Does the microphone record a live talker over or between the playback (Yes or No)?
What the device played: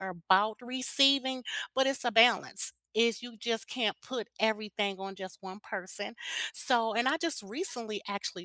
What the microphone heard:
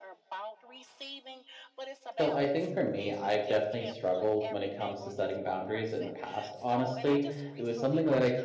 Yes